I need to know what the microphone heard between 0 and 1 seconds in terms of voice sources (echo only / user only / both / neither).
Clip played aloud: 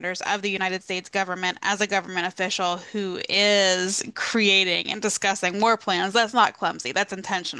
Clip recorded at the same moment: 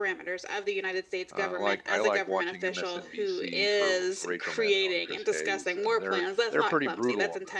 echo only